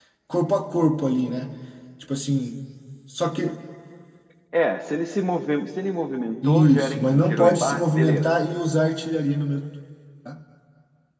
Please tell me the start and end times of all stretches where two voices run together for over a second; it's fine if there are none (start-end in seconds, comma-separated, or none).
6.4-8.3